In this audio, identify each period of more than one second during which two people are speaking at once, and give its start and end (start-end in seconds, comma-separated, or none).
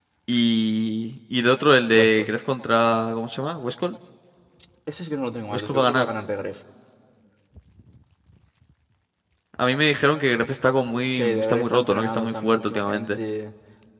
11.0-13.2